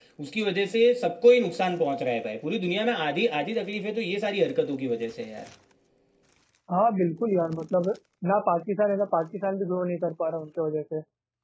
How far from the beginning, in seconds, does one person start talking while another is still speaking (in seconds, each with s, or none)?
none